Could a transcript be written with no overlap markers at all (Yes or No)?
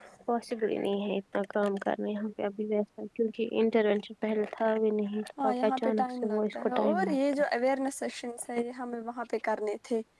No